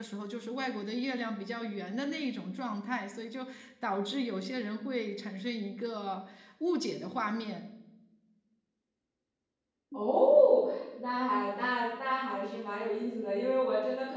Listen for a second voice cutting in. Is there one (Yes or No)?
No